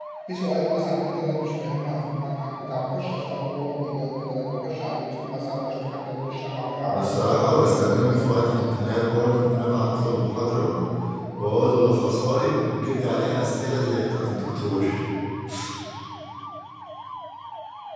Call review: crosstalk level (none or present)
present